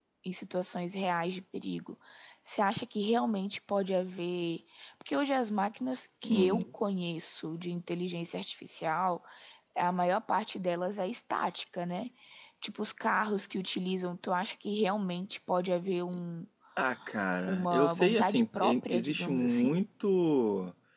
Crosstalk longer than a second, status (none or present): present